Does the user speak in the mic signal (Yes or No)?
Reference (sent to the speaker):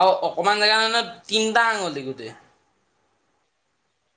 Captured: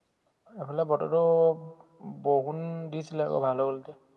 Yes